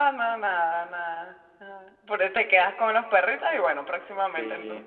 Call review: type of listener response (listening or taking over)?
taking over